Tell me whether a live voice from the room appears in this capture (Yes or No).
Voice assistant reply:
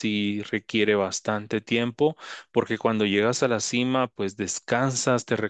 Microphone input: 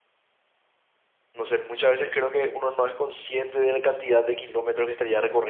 Yes